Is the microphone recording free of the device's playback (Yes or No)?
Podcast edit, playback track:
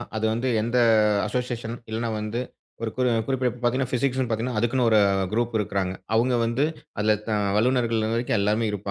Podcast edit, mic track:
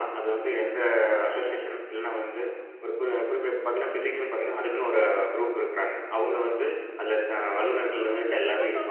No